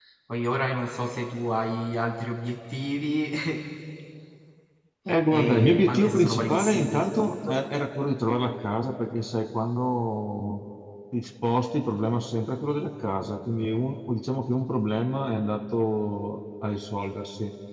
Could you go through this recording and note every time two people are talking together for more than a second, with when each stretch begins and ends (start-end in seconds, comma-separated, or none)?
5.3-7.5